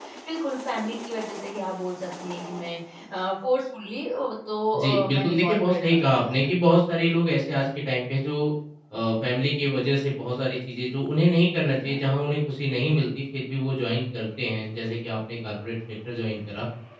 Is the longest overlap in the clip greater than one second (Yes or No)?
Yes